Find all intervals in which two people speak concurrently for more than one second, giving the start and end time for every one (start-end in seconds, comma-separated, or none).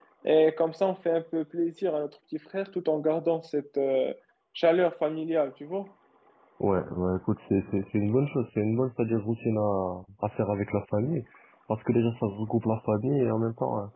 none